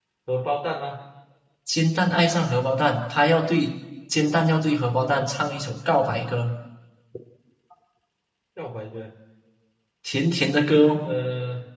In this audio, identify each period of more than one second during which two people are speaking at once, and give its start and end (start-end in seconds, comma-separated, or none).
none